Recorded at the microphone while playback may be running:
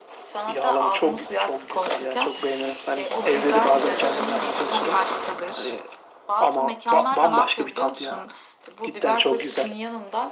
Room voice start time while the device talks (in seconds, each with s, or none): 3.1 s